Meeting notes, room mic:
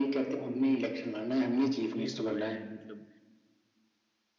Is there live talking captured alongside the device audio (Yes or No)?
Yes